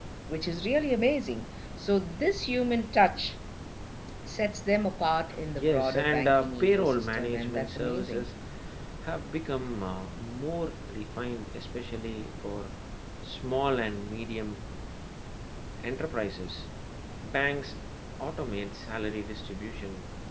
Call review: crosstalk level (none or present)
present